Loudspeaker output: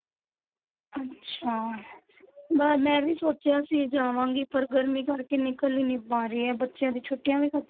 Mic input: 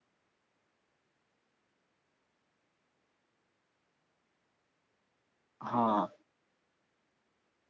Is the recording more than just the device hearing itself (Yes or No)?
Yes